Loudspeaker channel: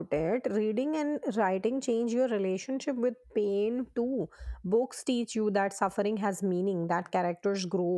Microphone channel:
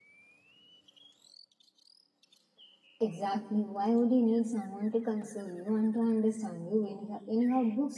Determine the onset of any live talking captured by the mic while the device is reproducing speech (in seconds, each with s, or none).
3.0 s